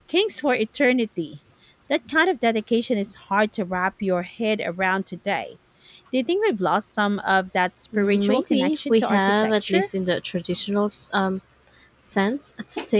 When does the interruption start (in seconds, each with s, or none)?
7.9 s